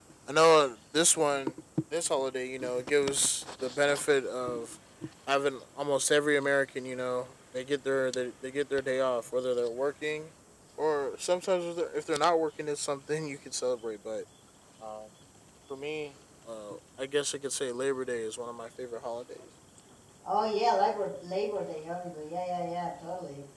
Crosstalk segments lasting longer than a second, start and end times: none

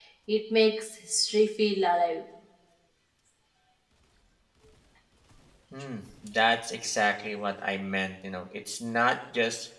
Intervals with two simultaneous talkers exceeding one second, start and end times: none

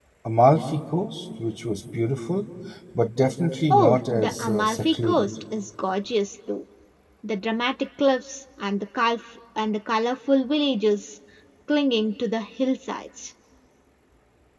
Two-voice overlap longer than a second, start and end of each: 3.7-5.3

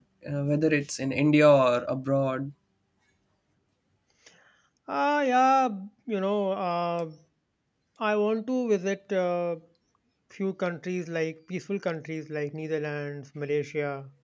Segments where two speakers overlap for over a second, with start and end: none

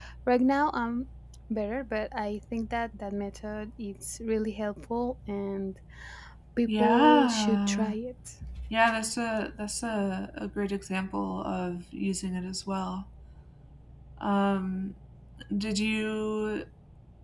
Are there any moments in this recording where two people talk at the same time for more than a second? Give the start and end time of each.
6.7-8.0

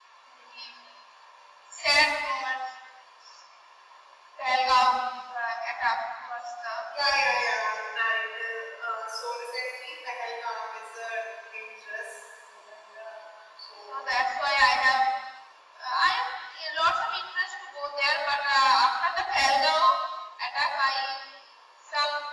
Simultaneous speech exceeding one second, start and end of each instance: none

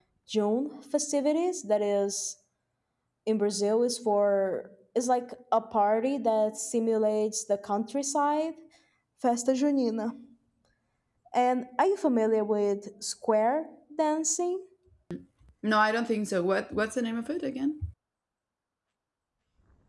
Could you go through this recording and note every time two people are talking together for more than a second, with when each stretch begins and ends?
none

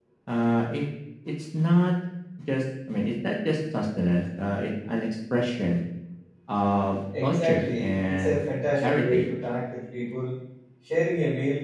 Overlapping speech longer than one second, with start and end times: 7.2-8.4

